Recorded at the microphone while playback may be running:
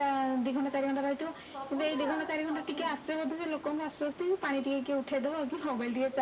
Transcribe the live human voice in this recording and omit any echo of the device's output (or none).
ସବୁ ତ ଆଉ ସବୁ